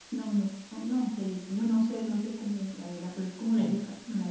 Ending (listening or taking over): listening